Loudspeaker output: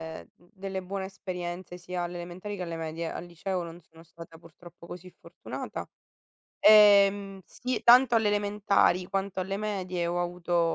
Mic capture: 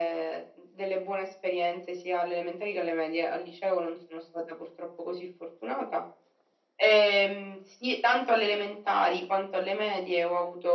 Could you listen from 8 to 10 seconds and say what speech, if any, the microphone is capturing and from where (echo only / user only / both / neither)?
echo only